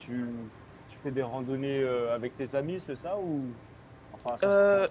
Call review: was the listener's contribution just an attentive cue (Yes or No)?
No